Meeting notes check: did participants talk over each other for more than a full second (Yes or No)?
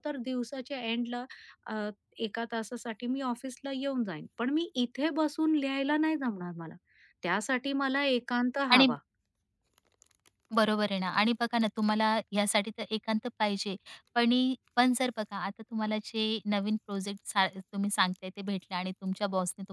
No